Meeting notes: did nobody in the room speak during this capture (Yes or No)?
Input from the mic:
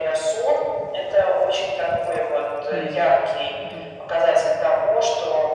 No